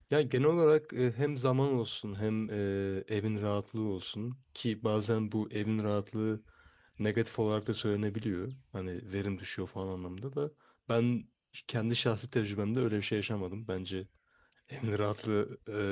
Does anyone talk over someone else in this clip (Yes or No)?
No